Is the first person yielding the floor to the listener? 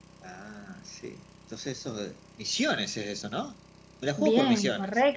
Yes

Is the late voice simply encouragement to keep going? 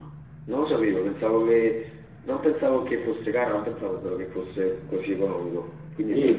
No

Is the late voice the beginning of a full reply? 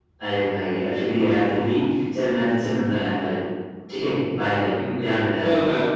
Yes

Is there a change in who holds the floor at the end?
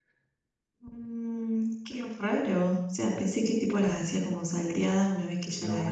Yes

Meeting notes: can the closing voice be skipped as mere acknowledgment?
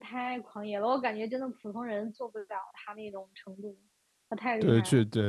No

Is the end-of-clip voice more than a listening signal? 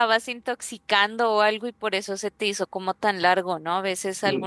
No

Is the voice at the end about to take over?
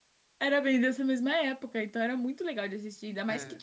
No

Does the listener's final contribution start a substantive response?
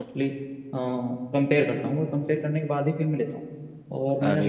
No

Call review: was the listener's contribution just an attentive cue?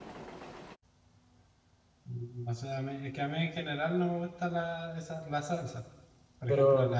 Yes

